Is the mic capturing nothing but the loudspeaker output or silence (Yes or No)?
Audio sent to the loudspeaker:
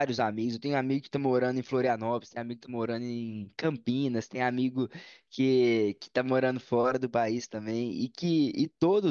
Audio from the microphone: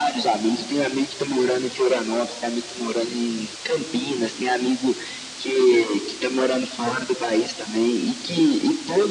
Yes